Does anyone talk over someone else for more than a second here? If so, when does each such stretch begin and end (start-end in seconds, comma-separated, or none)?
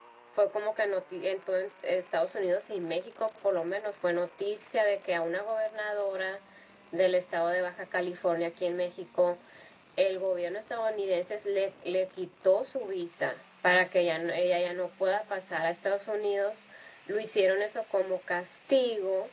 none